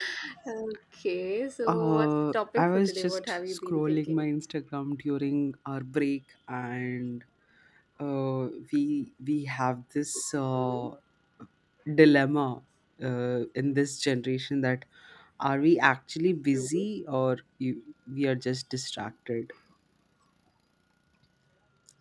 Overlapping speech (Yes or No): Yes